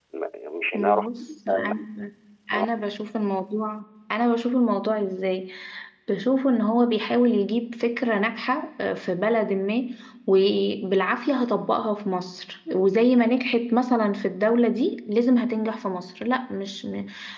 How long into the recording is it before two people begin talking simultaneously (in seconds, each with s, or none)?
0.7 s